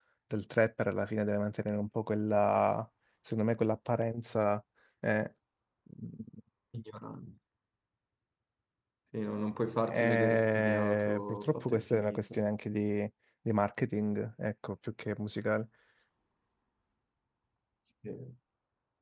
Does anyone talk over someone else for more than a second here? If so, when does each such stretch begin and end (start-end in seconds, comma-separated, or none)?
9.9-12.4